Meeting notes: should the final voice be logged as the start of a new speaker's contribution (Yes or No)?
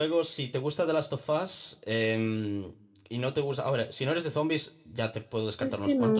Yes